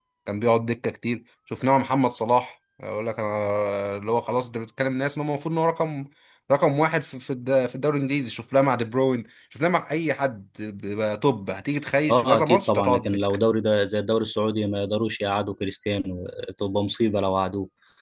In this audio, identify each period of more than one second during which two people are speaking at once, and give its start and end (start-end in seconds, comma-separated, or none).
12.1-13.4